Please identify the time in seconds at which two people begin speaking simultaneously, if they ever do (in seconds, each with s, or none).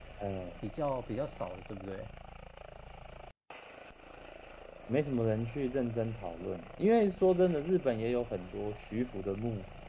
none